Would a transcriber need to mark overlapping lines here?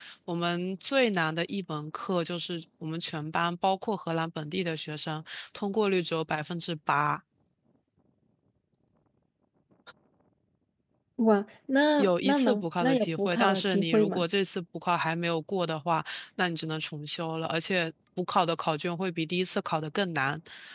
Yes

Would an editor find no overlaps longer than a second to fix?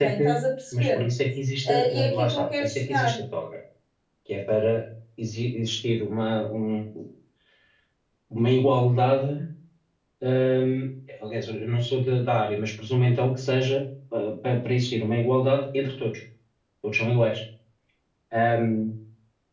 No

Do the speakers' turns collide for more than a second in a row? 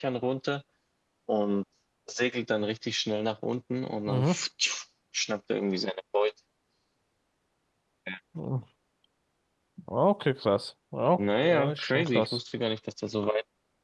Yes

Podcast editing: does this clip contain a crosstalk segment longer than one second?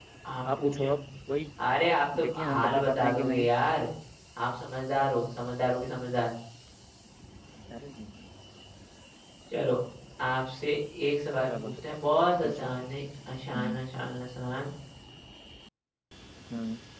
Yes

